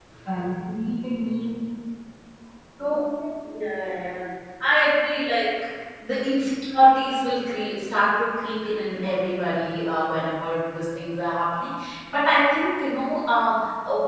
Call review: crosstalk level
none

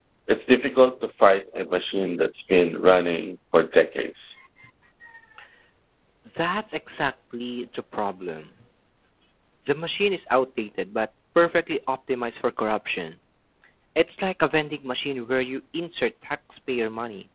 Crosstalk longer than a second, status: none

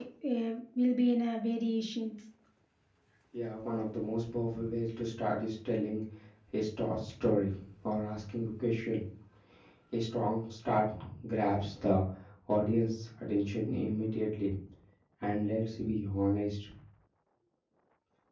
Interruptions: none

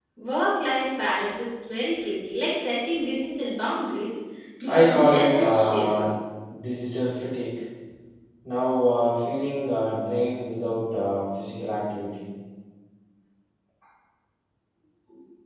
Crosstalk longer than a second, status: present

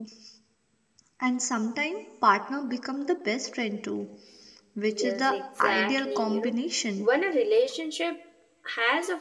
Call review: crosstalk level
present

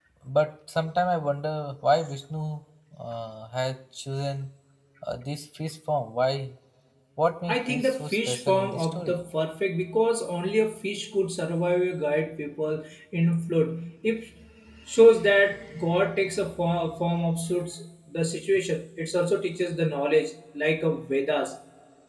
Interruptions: present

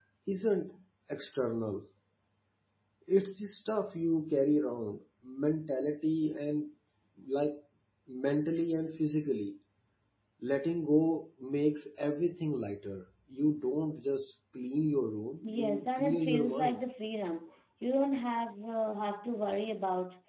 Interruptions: present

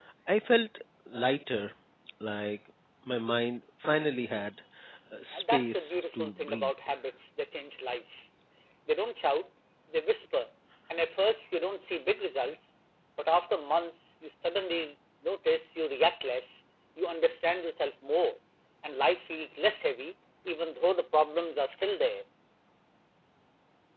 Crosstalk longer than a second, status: present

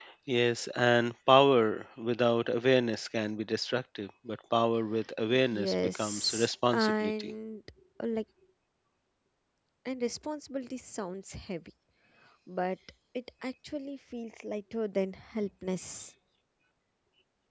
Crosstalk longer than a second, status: present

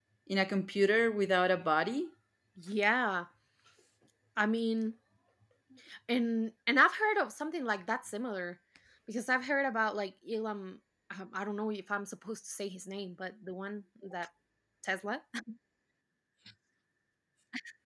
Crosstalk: none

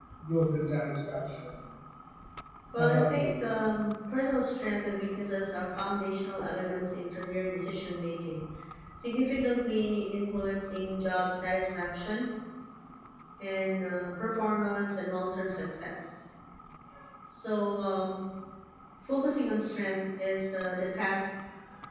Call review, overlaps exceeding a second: none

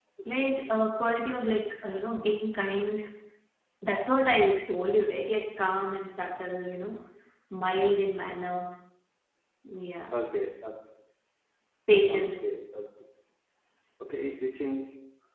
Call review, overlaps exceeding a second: none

